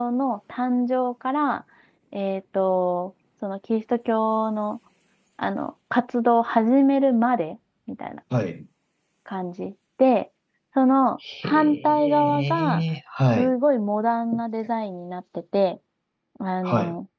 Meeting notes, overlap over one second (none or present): present